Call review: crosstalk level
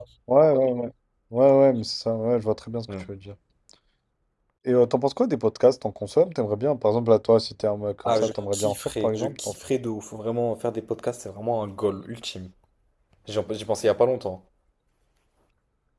present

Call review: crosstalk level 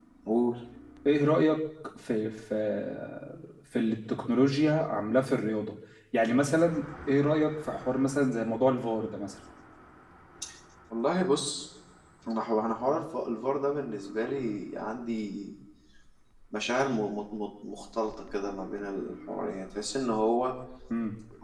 none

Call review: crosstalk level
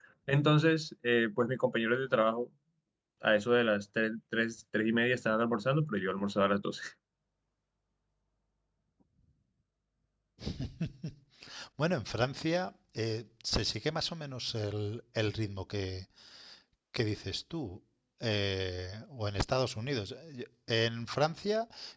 none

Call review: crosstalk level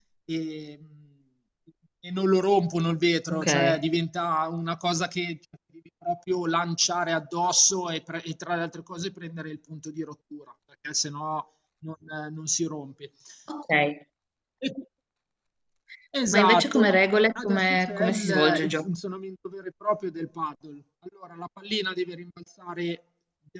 present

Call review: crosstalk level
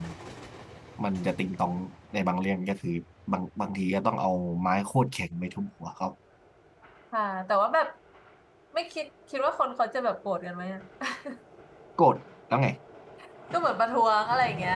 none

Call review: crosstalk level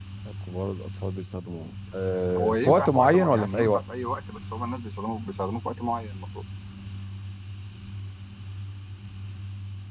present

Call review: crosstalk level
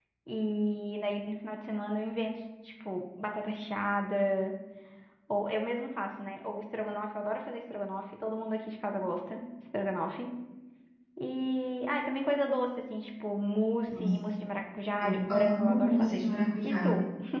present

